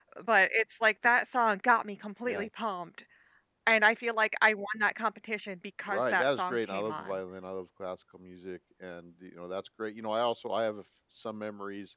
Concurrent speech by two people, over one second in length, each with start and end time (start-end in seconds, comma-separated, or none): 5.9-7.1